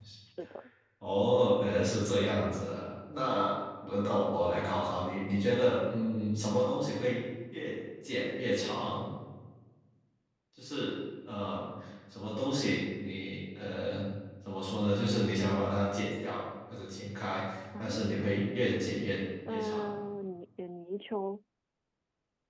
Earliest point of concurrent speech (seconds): 17.8 s

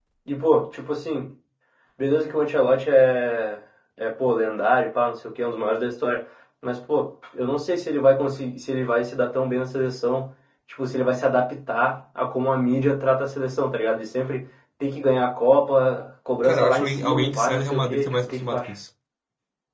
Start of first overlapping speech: 16.4 s

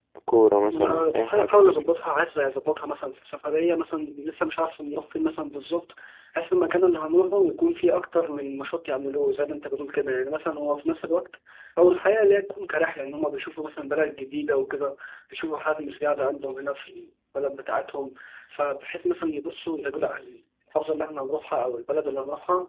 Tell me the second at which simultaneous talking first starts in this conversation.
0.7 s

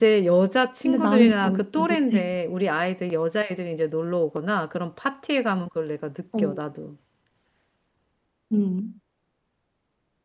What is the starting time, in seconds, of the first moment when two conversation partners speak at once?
0.8 s

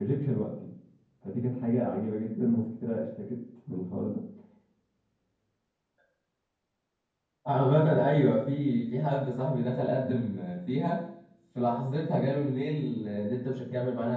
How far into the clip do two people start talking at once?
none

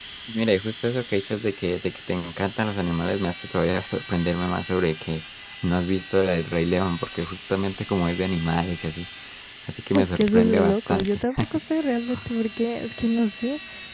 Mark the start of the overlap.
9.9 s

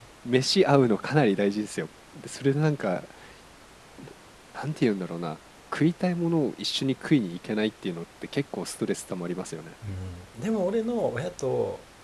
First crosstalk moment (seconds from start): none

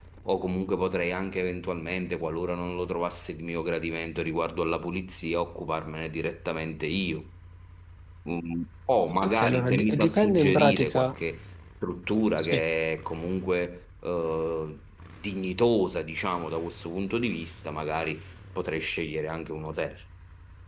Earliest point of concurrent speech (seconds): 9.2 s

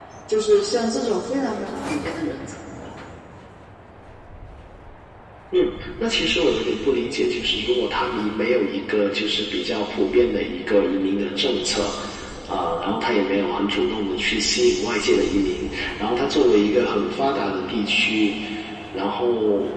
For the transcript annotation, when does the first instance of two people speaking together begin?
none

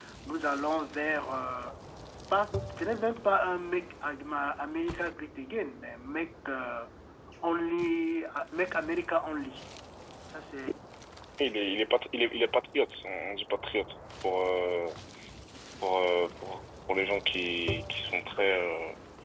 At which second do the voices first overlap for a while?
none

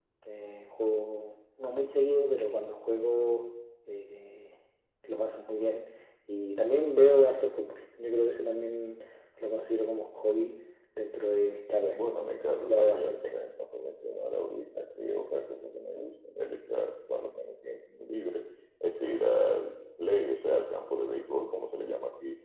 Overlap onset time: 11.9 s

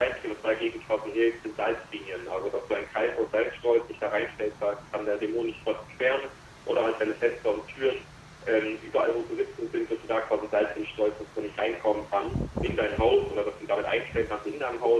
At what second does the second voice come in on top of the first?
none

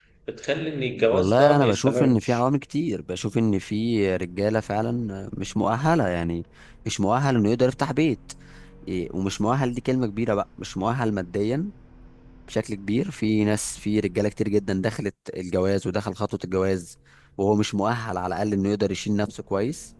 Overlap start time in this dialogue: 1.1 s

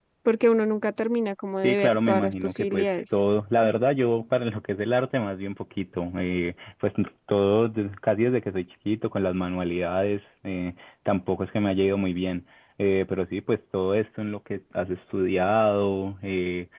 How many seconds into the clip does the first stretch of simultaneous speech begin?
1.6 s

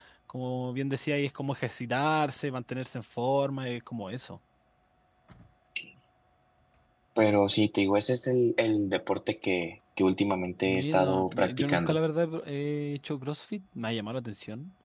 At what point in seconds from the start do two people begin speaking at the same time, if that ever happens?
10.6 s

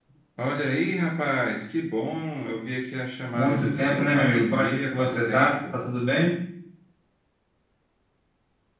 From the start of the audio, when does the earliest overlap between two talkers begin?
3.3 s

